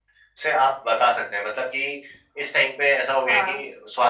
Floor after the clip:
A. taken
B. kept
B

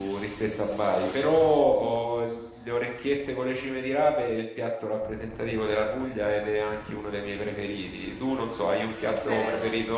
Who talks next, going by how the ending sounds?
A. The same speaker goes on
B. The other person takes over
B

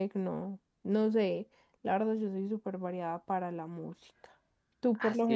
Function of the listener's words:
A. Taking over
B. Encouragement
A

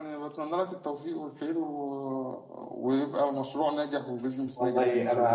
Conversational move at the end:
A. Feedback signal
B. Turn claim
B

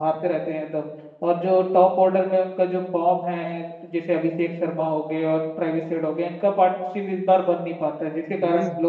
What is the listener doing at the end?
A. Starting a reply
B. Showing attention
A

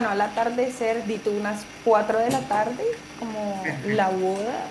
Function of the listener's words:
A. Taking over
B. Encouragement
B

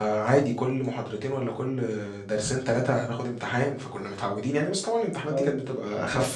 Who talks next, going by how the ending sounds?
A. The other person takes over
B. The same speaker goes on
A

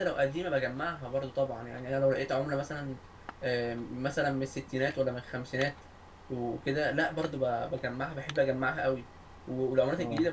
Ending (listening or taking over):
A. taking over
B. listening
B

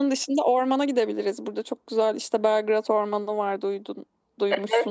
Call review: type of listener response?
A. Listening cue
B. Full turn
B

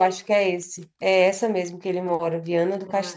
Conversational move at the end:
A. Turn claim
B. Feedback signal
A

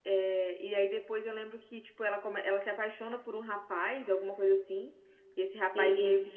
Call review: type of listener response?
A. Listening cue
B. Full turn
A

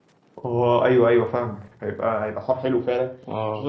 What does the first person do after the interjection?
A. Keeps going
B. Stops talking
A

